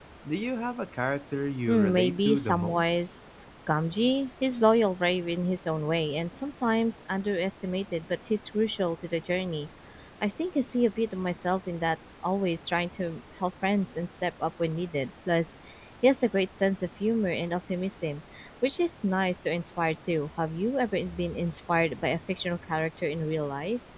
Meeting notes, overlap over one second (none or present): present